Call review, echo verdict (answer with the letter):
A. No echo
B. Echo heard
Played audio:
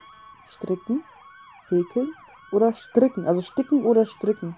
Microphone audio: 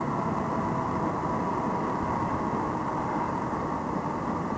A